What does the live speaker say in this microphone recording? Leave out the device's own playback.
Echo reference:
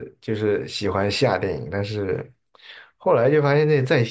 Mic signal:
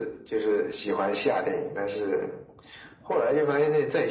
none

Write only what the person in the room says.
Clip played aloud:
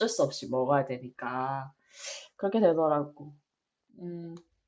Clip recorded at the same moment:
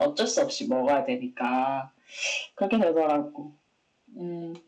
none

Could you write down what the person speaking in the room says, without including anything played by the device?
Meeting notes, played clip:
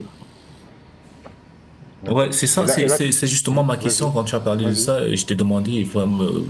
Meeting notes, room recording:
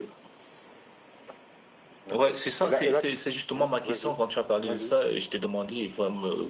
none

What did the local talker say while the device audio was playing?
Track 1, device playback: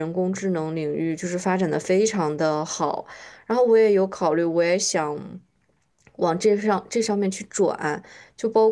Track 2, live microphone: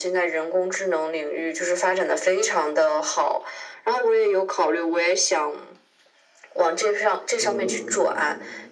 嗯，

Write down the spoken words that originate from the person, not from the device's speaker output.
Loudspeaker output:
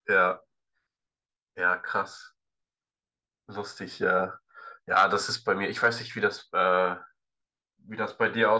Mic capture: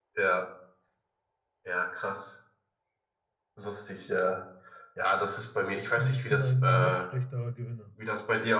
und ich bin ein noch schlechterer Gewinner.

